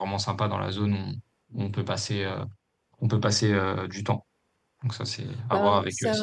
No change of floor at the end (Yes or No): No